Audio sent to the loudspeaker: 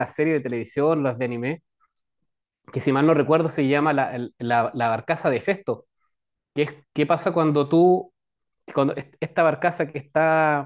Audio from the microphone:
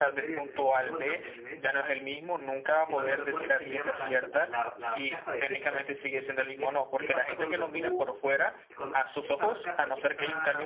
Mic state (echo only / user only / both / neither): both